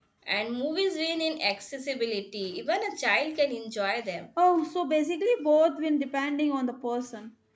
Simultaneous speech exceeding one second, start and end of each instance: none

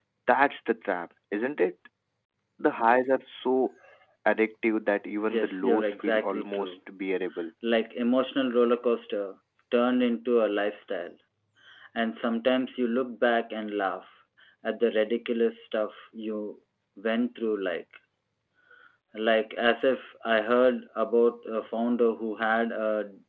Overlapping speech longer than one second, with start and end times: 5.3-6.7

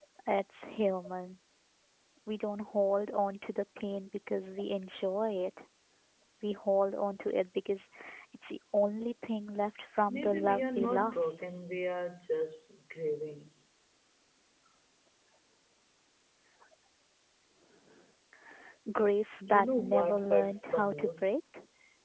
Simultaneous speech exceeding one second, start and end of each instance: 10.1-11.4, 19.5-21.3

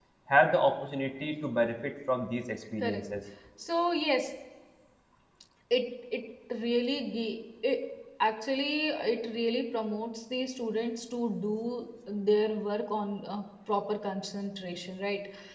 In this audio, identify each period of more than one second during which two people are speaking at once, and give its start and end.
none

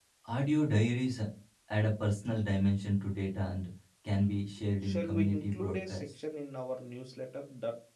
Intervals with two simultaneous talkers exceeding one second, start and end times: 4.8-6.1

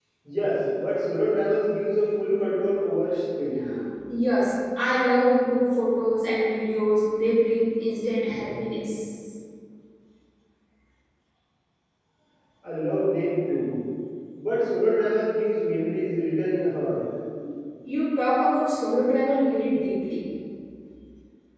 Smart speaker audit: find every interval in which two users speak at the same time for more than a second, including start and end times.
none

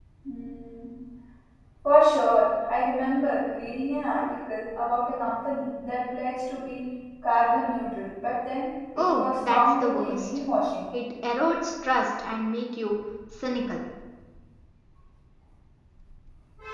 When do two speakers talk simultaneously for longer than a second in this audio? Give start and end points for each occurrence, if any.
9.0-10.4

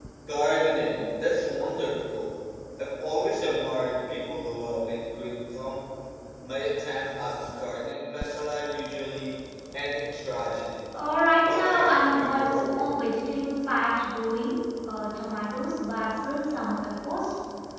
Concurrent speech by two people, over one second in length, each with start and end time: 11.4-12.8

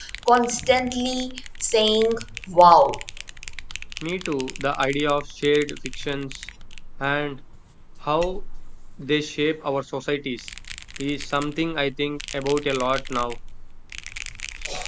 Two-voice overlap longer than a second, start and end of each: none

